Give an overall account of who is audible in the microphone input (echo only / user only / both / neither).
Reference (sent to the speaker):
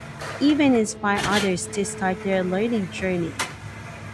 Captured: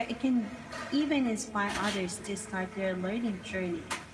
echo only